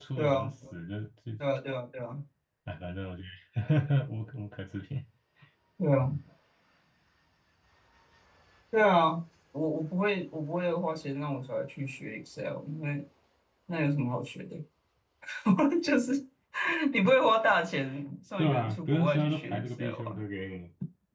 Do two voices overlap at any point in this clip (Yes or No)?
Yes